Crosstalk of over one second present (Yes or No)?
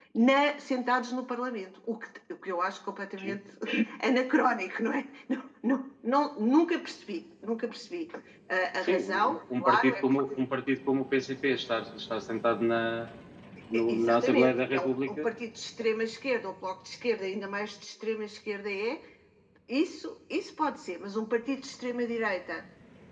Yes